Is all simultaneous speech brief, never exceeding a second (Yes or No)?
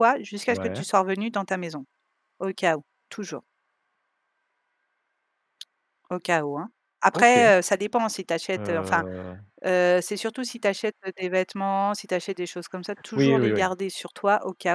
Yes